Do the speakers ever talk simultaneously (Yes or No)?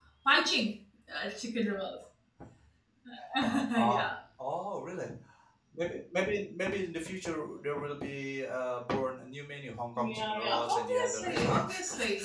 Yes